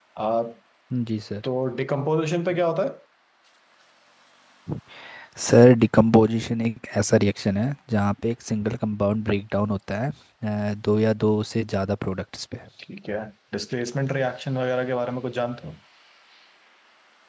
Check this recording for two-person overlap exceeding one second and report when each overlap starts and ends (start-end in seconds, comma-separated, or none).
none